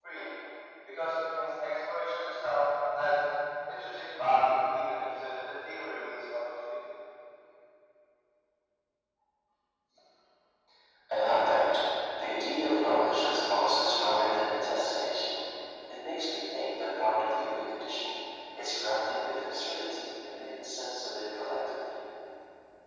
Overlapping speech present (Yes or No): No